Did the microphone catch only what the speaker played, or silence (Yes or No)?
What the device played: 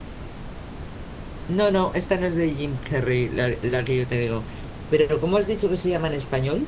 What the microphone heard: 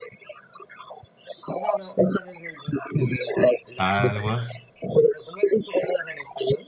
No